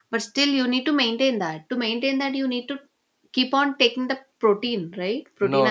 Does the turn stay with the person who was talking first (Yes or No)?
No